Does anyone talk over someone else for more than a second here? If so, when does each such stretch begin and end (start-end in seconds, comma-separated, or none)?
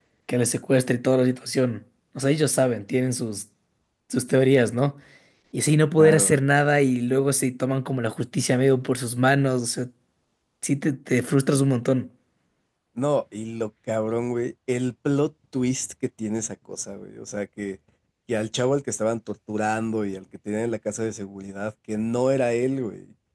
none